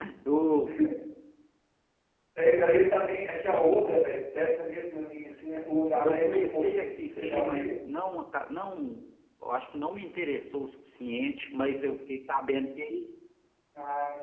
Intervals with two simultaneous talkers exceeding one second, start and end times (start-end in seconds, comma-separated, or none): 6.0-7.8